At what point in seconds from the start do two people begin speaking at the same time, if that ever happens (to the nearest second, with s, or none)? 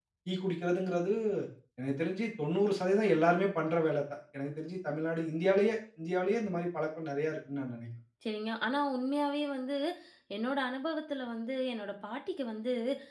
none